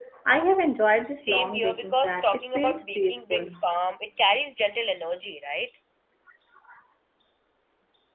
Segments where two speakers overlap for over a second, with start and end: 1.2-3.5

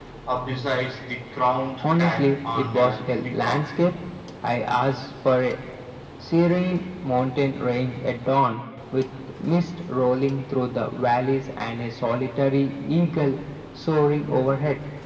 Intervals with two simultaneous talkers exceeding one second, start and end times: 1.8-3.6

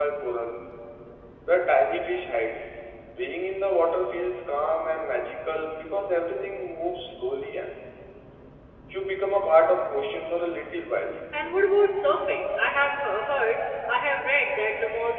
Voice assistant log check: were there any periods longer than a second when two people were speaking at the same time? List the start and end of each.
none

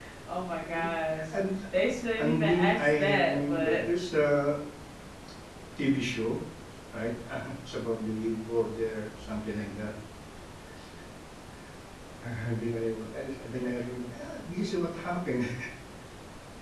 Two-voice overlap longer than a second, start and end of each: 2.2-3.9

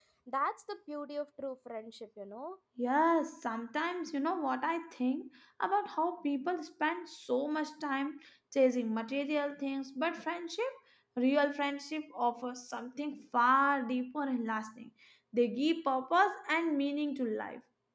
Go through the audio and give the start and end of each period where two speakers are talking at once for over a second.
none

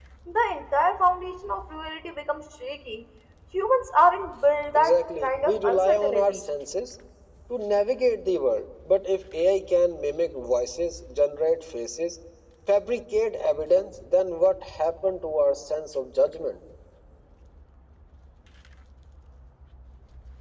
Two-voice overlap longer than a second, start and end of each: 4.7-6.4

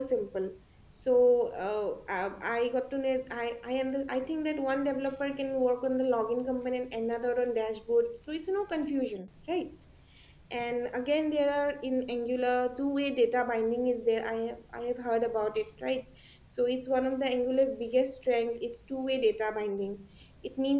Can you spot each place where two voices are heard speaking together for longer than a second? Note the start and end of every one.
none

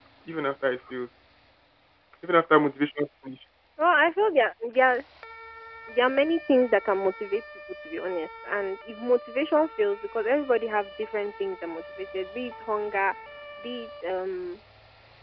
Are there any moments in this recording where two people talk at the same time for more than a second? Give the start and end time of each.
none

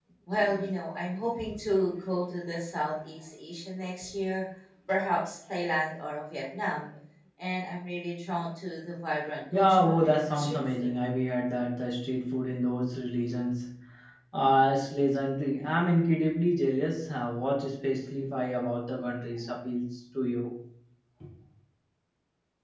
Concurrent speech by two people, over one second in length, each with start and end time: 9.5-10.9

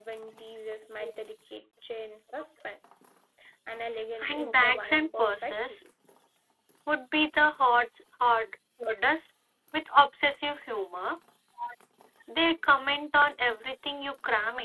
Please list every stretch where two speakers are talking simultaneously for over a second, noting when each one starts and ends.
4.2-5.8

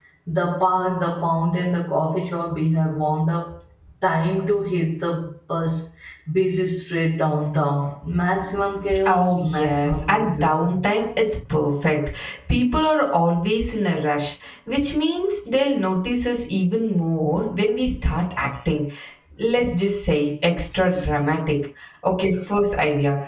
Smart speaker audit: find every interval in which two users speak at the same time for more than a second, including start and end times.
9.1-10.8

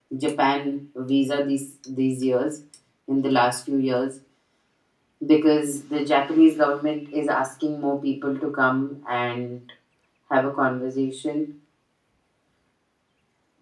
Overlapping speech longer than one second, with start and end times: none

